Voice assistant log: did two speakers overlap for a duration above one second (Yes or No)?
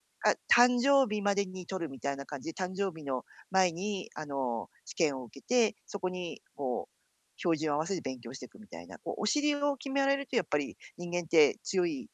No